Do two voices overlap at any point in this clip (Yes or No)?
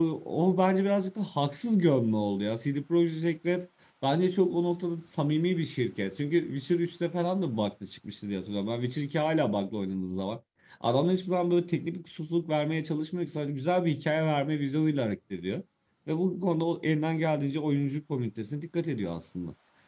No